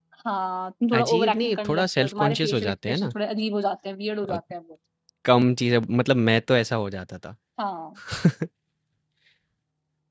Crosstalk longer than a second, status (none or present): present